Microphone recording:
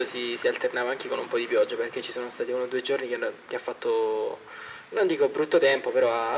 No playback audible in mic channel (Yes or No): No